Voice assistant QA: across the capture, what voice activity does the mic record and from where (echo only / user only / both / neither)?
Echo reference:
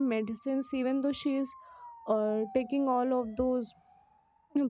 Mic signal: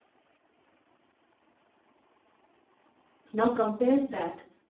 user only